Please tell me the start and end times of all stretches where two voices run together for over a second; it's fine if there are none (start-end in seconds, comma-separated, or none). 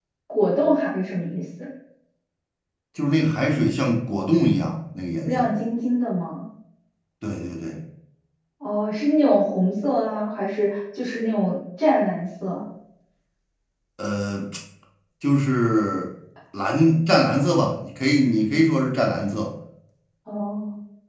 none